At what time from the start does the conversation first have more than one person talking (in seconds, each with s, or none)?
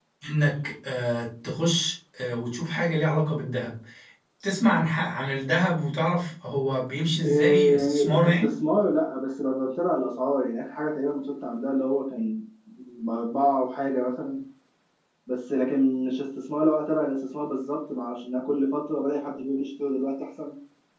7.2 s